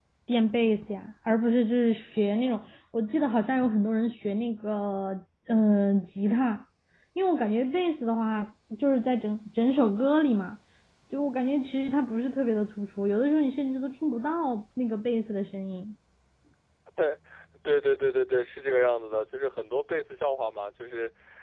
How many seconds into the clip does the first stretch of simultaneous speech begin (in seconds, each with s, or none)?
none